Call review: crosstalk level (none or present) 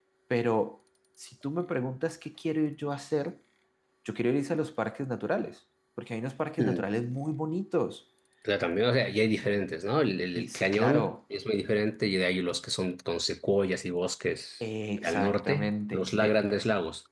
present